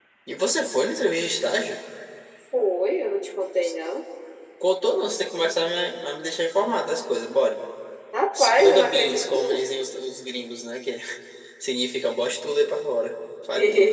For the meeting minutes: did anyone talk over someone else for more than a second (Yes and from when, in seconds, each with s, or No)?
Yes, from 8.4 s